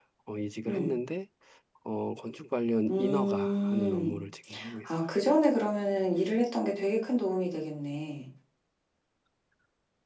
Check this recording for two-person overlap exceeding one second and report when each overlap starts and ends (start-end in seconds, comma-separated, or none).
2.9-4.2